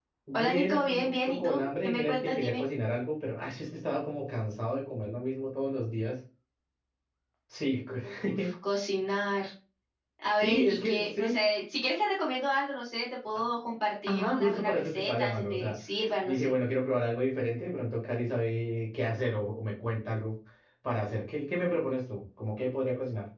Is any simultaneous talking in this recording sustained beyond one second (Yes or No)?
Yes